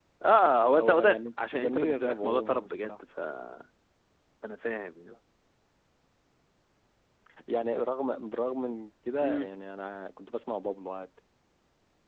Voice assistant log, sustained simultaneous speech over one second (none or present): present